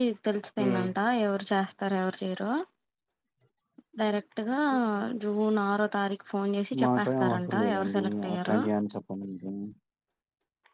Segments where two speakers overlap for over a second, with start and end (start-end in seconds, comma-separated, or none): 6.8-8.6